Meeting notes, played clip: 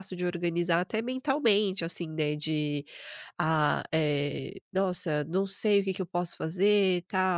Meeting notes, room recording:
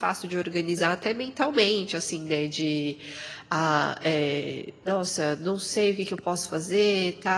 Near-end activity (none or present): none